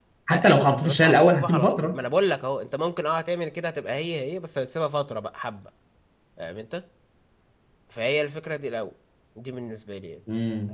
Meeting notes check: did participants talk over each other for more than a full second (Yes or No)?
Yes